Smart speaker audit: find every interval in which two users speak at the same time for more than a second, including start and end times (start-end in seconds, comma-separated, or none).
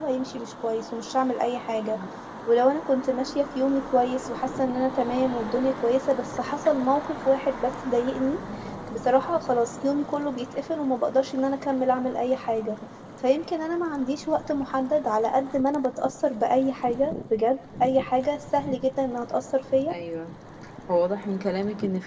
none